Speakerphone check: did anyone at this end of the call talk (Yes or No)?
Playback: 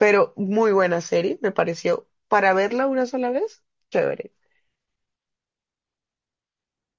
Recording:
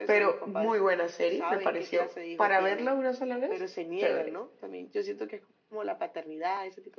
Yes